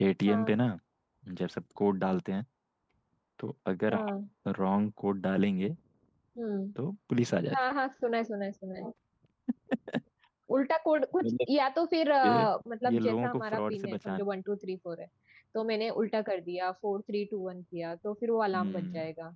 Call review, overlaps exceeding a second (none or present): present